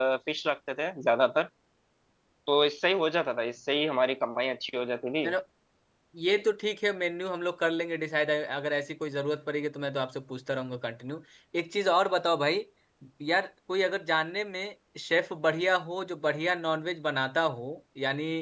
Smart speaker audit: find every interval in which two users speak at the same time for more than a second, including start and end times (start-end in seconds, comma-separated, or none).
none